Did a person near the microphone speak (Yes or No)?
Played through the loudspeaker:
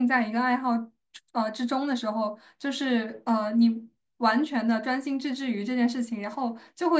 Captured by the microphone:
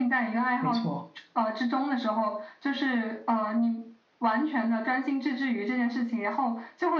Yes